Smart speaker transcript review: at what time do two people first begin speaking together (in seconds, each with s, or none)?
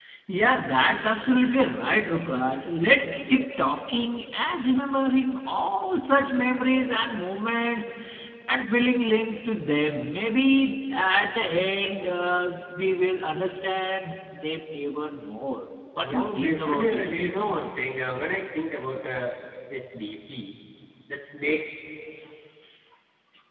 16.0 s